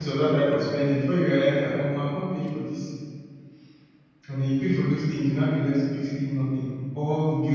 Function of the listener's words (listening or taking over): listening